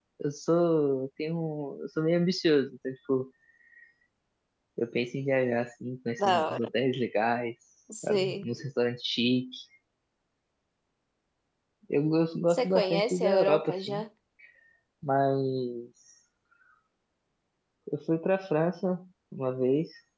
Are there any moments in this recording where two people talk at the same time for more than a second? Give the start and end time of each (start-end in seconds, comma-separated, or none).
12.5-14.0